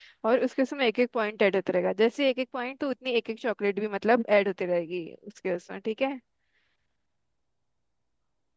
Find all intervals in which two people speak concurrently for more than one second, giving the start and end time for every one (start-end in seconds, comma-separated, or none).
none